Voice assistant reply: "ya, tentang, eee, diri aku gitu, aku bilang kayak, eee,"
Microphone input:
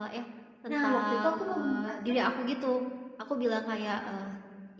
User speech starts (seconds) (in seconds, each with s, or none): 0.7 s